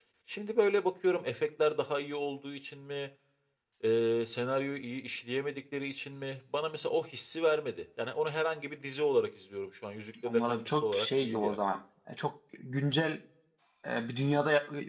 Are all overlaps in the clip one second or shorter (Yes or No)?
No